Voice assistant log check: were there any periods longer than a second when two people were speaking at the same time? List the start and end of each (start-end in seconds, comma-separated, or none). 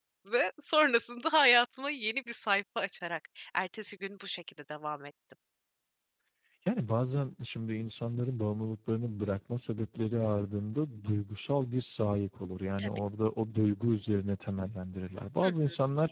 none